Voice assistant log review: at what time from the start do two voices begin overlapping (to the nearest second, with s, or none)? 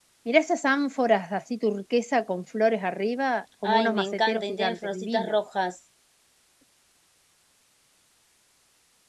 4 s